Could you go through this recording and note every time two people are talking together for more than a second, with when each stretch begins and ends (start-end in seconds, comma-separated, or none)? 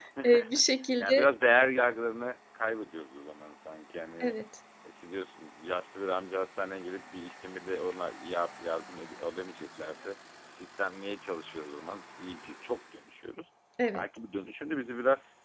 none